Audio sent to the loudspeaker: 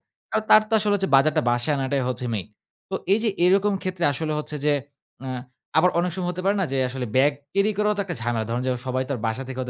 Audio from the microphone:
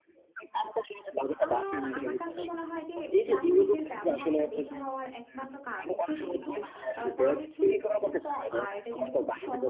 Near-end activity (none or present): present